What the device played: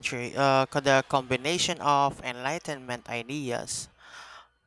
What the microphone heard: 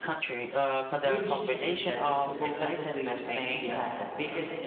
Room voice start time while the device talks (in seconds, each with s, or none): 1.0 s